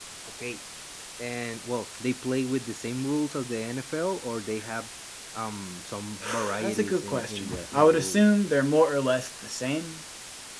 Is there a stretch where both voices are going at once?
Yes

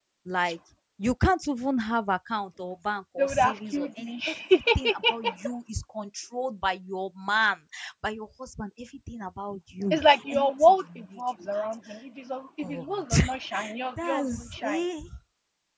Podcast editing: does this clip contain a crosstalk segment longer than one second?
Yes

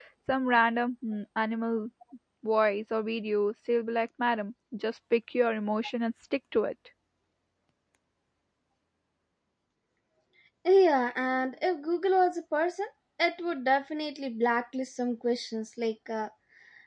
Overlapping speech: No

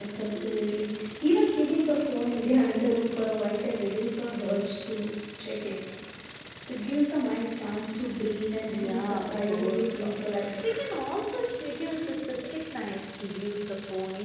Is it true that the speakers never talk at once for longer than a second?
No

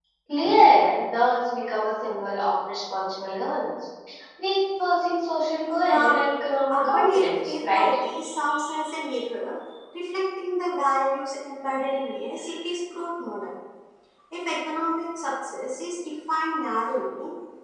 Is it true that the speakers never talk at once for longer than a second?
No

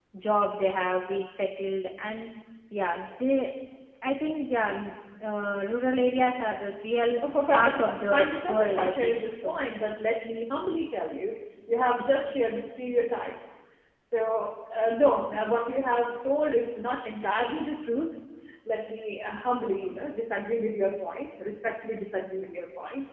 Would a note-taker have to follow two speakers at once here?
Yes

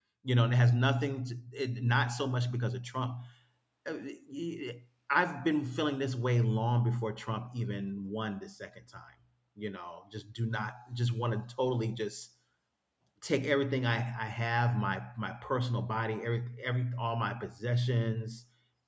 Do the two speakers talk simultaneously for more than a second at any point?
No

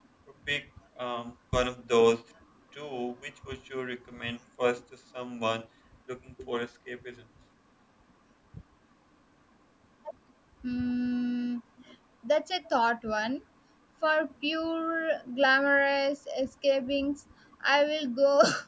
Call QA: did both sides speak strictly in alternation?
Yes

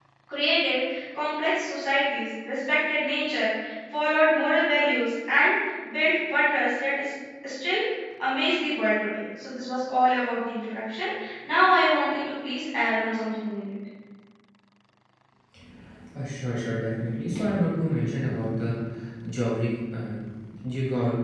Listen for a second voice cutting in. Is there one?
No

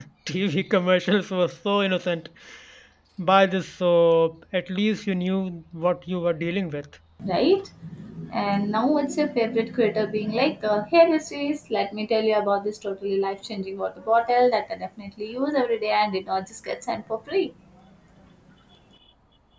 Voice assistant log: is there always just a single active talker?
Yes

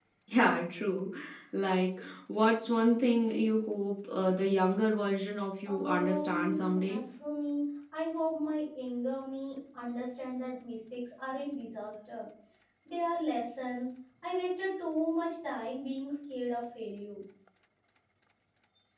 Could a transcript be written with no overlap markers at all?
No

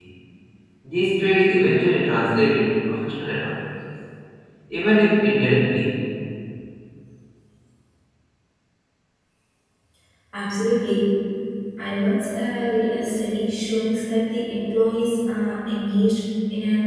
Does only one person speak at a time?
Yes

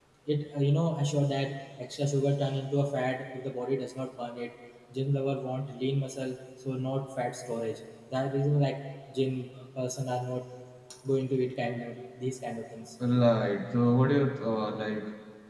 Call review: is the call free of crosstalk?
Yes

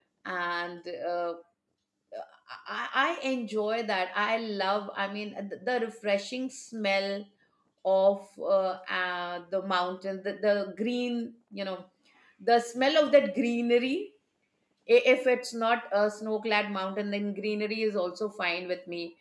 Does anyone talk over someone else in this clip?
No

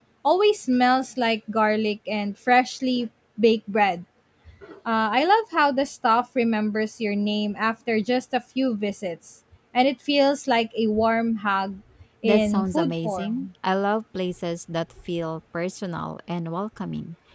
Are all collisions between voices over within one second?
No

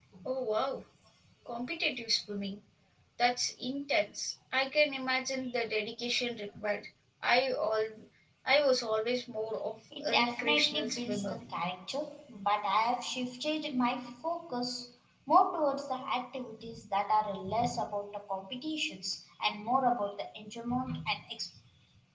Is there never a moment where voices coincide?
No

